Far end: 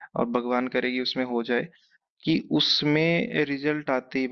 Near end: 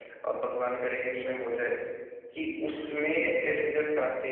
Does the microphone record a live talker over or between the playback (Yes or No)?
No